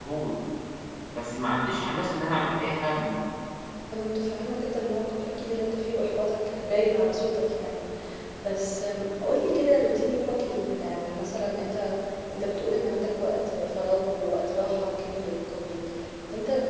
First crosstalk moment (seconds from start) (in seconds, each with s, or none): none